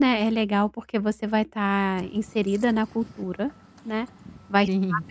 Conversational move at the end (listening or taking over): listening